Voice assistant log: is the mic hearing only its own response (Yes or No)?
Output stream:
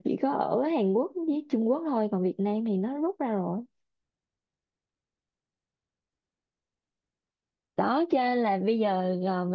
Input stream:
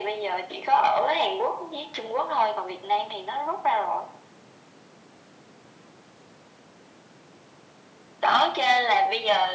Yes